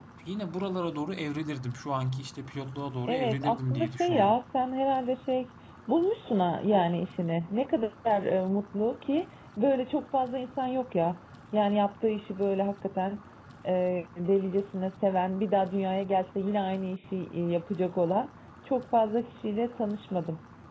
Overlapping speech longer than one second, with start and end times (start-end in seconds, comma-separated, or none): 3.1-4.4